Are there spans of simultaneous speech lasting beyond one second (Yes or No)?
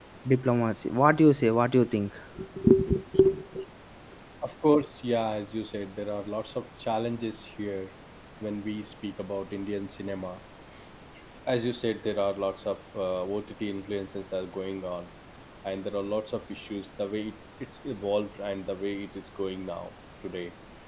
No